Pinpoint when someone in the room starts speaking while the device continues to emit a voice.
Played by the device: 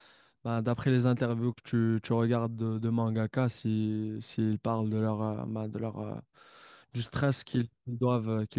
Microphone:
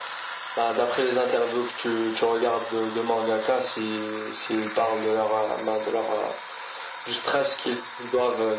none

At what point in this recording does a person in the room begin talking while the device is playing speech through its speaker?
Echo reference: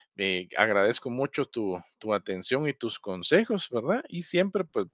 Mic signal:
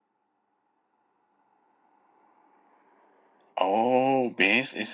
3.5 s

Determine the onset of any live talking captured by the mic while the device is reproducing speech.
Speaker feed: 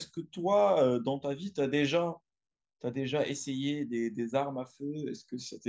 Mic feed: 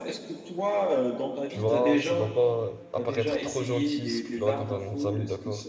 1.5 s

